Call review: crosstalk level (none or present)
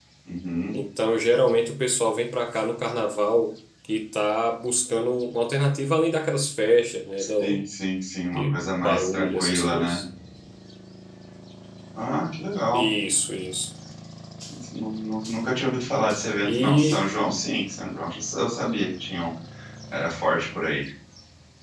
present